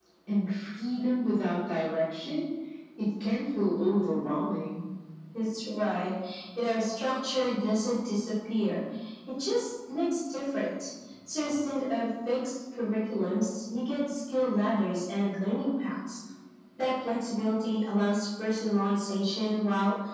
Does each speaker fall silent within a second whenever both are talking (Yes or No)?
Yes